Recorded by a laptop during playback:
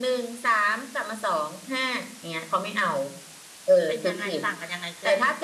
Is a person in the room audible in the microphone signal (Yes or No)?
Yes